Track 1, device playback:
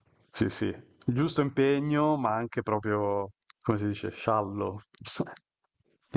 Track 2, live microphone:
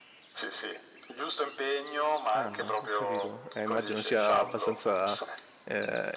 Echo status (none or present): present